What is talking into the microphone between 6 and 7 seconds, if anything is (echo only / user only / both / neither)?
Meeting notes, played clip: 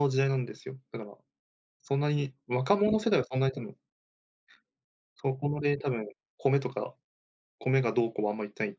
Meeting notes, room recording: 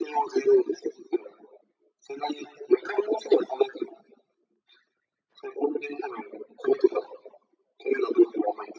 echo only